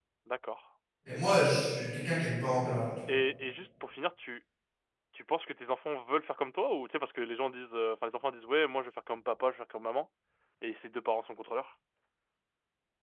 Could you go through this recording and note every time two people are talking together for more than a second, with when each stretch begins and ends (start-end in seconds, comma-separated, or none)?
none